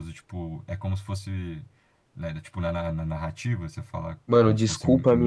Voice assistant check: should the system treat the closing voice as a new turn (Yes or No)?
Yes